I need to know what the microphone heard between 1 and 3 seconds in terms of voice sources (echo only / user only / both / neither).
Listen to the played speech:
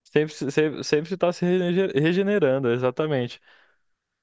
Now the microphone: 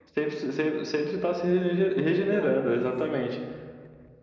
both